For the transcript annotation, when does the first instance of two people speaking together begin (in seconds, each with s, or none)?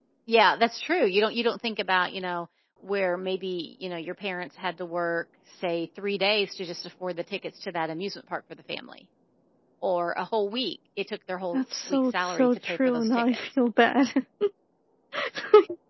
11.5 s